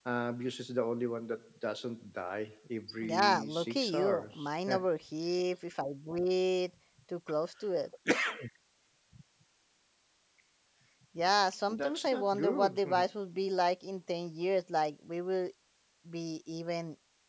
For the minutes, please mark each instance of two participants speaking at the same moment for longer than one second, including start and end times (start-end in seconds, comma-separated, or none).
3.1-4.9, 11.7-13.1